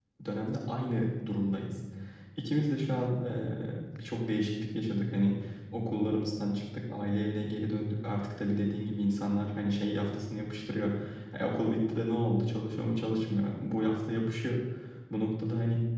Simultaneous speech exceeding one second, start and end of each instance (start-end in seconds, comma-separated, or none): none